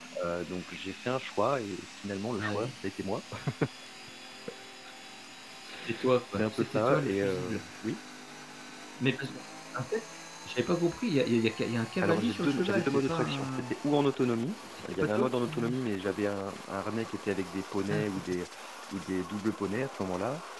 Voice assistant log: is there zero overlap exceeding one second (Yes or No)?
No